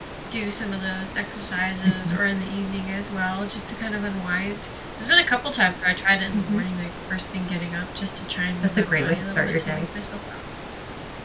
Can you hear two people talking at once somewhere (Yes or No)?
Yes